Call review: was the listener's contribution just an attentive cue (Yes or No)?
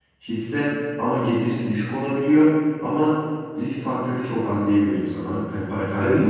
No